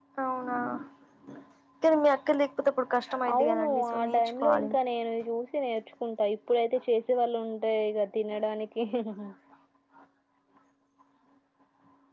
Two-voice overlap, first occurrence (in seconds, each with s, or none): 3.2 s